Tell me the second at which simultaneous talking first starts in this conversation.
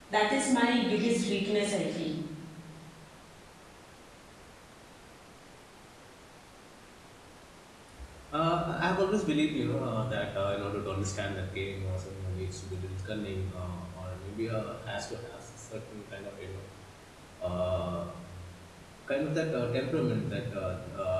none

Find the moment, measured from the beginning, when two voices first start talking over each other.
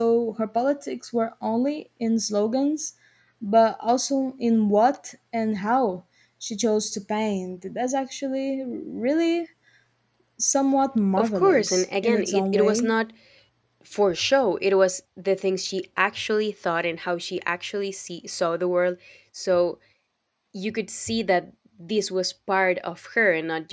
11.2 s

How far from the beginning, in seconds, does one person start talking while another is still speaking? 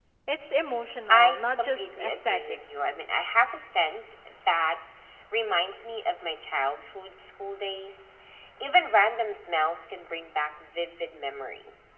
1.1 s

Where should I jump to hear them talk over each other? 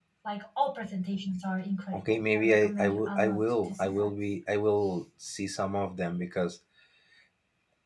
1.9 s

